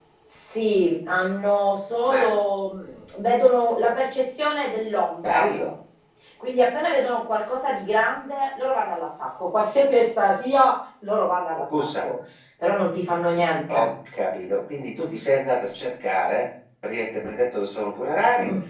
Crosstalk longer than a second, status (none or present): none